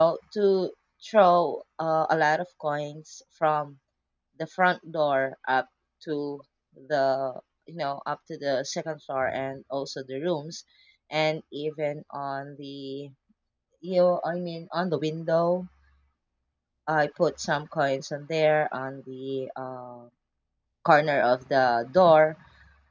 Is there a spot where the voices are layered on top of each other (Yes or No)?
No